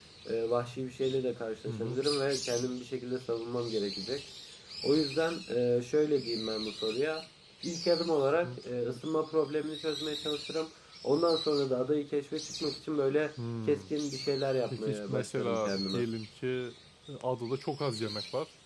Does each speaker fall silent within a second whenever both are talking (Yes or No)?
No